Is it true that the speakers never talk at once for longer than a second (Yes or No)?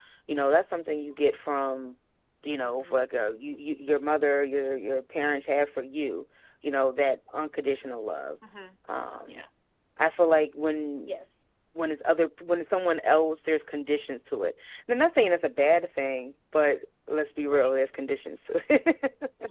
Yes